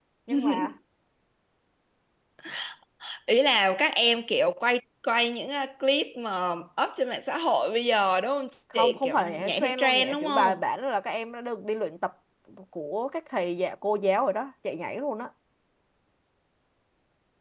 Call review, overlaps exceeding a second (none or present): present